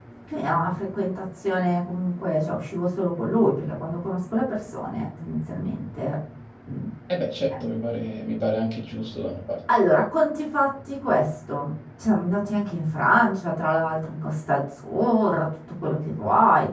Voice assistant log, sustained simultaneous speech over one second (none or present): none